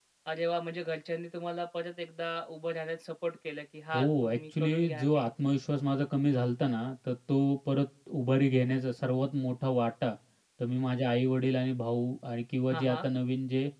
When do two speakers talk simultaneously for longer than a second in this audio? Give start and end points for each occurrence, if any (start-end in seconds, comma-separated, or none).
3.9-5.3